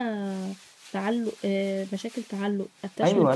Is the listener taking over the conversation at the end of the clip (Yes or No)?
Yes